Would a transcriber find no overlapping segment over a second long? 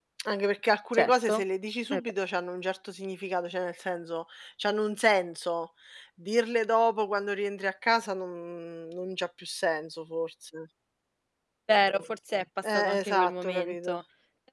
No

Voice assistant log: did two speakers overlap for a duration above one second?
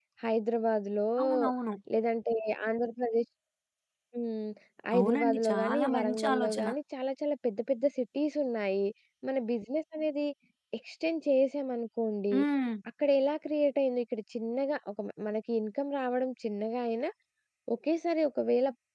Yes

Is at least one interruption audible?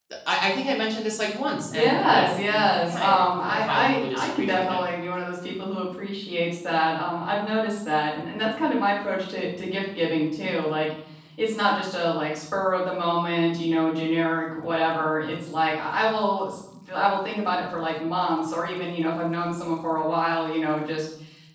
Yes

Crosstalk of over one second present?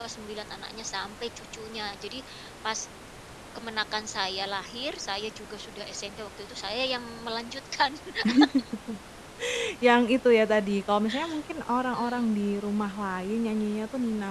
No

